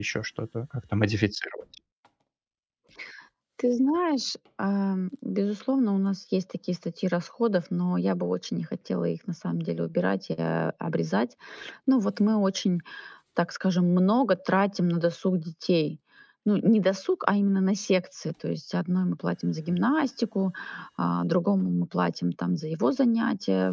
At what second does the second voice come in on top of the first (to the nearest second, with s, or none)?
none